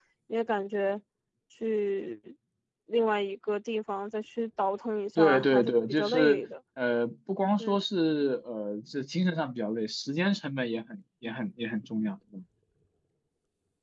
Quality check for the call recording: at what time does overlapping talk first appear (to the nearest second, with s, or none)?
5 s